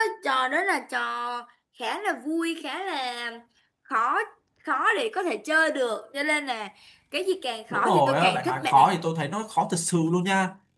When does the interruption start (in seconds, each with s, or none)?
7.7 s